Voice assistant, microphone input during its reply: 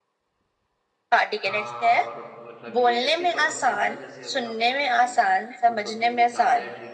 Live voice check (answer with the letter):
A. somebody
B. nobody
A